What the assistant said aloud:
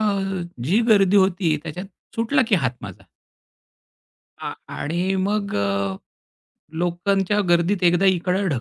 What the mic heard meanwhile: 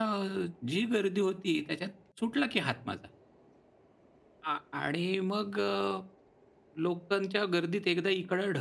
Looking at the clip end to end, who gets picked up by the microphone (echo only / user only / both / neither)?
echo only